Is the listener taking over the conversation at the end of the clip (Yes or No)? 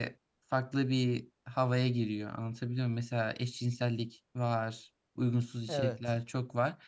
No